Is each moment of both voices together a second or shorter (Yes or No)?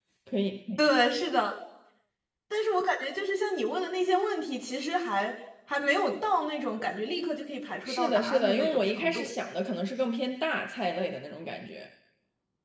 No